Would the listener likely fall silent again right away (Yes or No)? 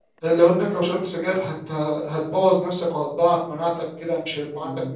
Yes